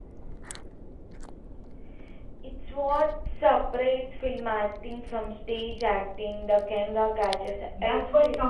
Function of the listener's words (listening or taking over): taking over